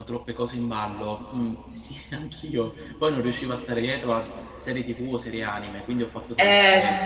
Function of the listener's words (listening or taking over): taking over